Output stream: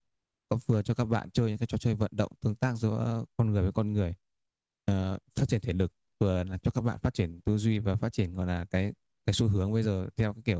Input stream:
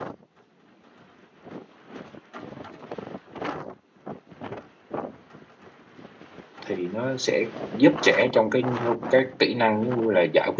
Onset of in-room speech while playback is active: 6.7 s

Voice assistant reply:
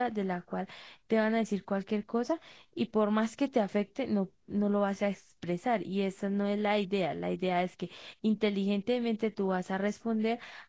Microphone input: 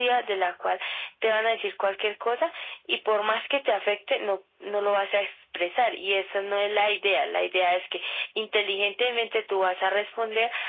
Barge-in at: none

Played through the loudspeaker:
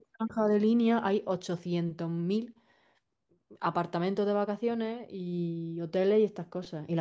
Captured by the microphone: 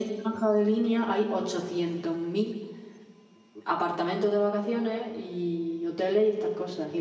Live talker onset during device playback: none

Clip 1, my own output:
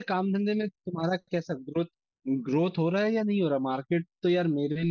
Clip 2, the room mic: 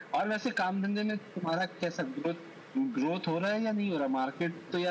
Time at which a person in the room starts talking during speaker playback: none

